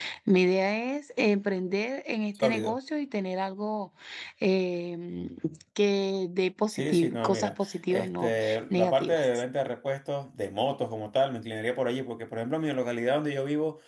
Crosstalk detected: Yes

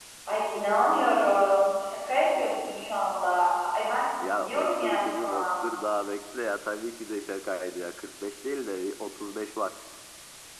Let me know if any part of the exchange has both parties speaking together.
Yes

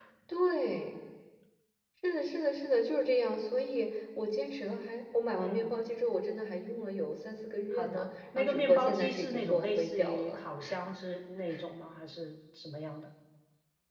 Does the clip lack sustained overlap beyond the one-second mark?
No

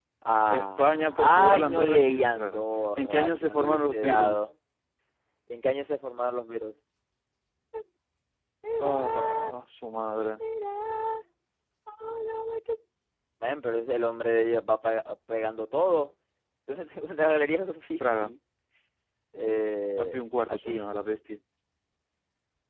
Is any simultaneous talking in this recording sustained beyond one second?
Yes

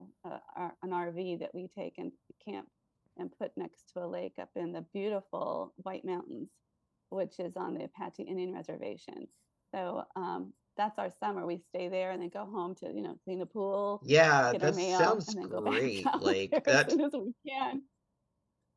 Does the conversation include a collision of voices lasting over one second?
Yes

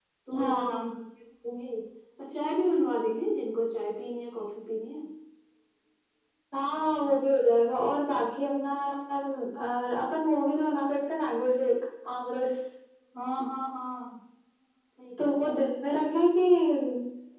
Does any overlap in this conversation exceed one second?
No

